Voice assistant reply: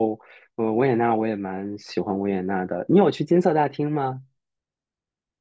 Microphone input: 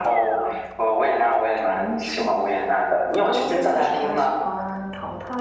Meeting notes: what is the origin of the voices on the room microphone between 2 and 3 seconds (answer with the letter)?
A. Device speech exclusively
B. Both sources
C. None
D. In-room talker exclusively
B